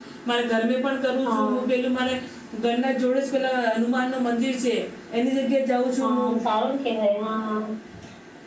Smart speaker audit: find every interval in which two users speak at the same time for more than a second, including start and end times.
none

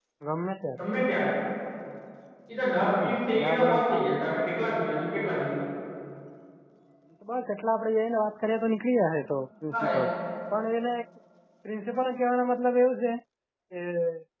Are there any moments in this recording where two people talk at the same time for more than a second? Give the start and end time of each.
2.8-4.1

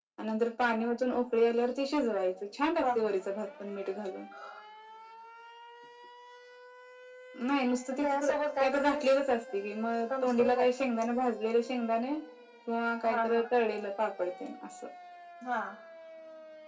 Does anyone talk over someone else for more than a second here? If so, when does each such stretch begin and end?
7.9-9.1

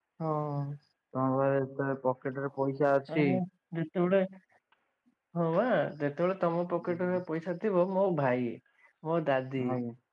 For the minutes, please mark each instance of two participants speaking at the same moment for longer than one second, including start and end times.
none

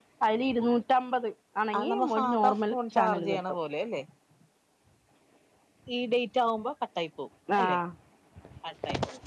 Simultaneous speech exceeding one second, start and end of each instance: 1.8-3.4

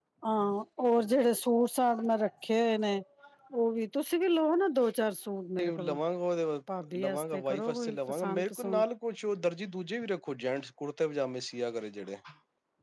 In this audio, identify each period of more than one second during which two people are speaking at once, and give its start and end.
7.0-8.8

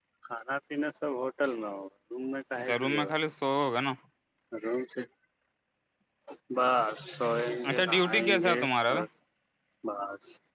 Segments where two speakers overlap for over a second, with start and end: 7.7-8.9

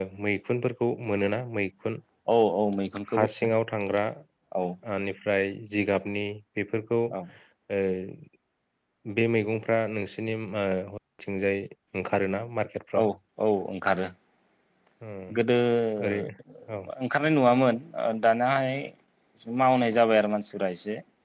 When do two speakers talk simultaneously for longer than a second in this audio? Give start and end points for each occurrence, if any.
none

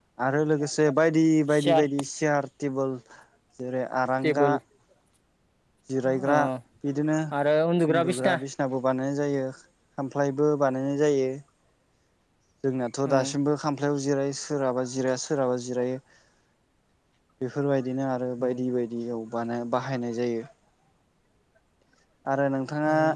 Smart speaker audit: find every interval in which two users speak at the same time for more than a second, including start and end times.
none

